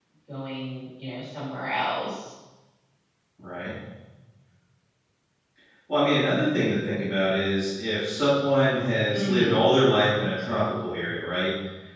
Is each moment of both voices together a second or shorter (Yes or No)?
Yes